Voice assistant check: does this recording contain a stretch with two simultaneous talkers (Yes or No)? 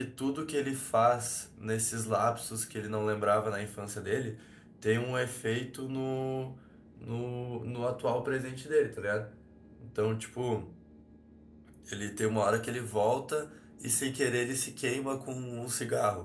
No